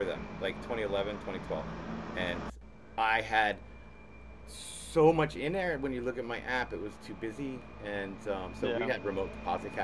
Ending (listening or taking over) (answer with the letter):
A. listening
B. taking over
A